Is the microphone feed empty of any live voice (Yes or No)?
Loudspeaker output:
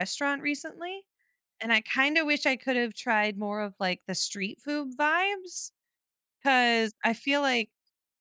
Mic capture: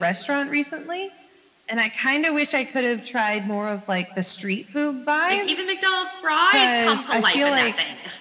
No